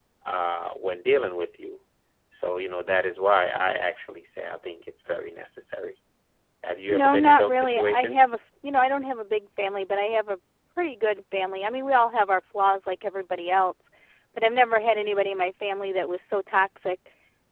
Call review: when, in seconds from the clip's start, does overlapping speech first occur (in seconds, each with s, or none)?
6.9 s